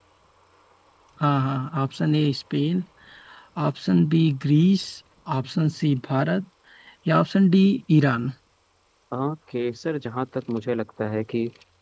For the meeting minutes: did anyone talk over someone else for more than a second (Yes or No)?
No